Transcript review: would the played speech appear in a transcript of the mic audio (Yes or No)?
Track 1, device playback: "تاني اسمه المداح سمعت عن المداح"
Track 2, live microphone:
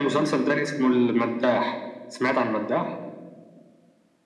Yes